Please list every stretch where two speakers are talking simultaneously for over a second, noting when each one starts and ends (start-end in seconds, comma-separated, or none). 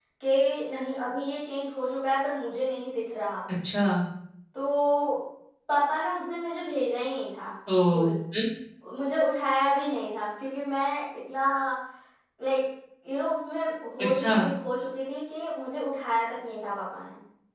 none